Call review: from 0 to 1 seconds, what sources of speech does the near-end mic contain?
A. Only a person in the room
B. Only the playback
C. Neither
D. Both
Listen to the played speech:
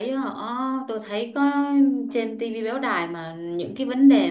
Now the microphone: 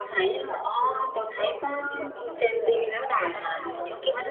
D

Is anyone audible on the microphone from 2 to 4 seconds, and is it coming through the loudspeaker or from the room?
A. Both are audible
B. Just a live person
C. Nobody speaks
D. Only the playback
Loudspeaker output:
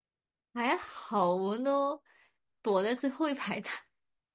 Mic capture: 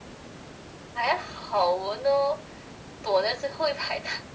D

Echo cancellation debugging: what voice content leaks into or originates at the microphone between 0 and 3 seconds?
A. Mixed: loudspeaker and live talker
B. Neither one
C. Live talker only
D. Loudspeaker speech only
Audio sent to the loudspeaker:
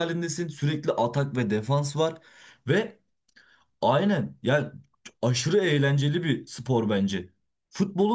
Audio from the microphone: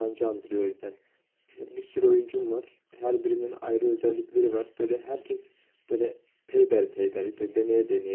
C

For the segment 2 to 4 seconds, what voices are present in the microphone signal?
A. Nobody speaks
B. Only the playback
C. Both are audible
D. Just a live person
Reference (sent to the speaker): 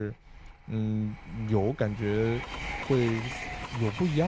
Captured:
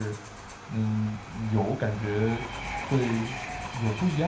B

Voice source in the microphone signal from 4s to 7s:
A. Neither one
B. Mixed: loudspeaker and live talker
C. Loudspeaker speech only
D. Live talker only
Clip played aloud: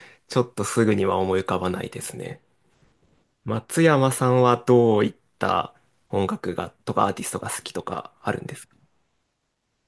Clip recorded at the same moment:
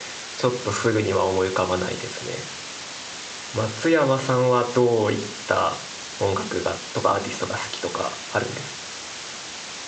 C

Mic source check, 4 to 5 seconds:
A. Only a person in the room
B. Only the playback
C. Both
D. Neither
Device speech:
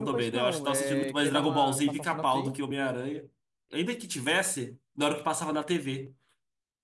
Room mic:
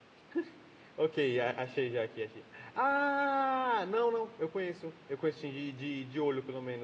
A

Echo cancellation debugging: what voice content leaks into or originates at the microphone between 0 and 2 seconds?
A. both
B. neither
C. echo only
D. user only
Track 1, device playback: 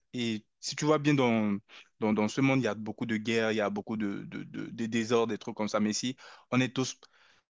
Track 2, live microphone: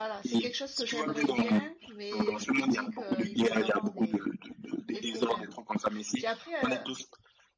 A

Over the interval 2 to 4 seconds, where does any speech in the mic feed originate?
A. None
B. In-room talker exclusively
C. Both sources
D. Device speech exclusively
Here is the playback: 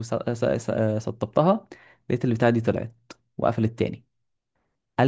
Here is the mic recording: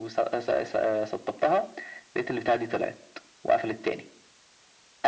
D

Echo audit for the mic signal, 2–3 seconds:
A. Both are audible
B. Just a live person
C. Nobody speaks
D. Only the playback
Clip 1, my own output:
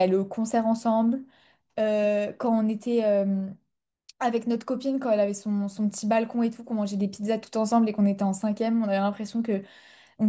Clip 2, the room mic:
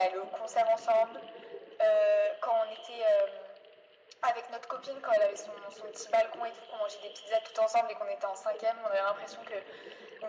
D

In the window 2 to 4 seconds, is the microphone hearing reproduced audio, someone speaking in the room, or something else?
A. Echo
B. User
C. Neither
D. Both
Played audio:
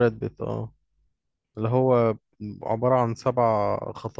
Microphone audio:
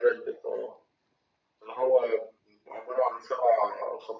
A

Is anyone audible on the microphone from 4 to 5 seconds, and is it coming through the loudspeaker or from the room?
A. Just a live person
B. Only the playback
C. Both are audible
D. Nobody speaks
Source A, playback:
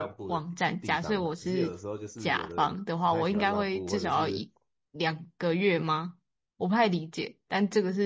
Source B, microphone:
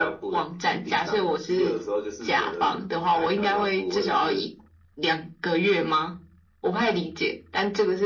B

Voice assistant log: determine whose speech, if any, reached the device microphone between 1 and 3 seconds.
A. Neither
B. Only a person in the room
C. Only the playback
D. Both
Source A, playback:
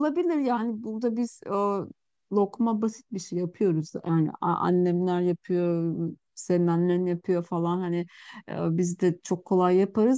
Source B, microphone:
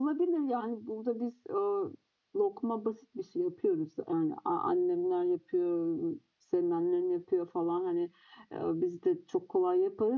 C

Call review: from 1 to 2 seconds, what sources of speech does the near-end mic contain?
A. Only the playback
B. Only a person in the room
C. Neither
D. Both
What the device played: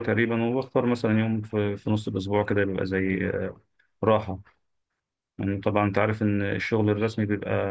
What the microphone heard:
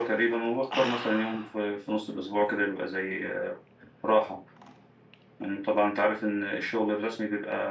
A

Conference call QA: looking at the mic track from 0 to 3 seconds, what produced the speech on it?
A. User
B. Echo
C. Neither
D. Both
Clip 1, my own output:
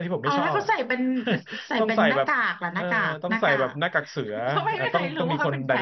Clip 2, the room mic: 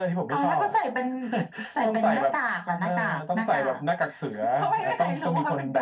B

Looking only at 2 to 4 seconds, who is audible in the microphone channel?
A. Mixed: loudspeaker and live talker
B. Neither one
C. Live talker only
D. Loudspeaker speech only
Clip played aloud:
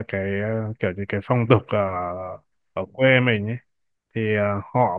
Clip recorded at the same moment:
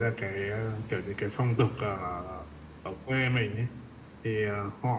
D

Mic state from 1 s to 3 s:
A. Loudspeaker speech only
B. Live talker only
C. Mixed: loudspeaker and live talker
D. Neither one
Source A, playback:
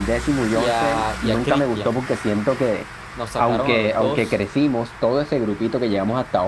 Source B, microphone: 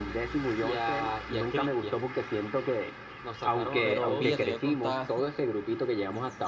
A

